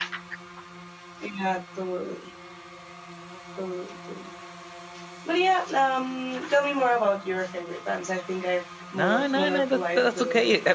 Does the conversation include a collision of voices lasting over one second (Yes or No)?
Yes